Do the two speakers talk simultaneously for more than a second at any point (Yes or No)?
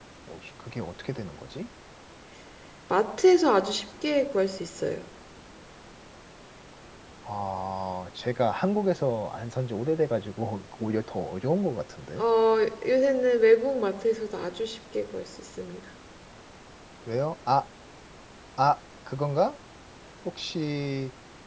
No